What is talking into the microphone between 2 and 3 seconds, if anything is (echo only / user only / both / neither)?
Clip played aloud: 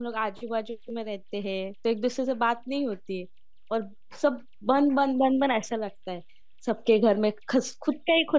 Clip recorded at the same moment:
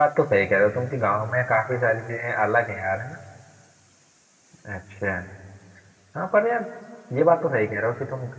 user only